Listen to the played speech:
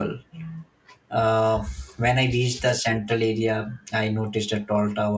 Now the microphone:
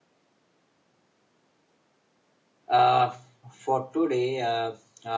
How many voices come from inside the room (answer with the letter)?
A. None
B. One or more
B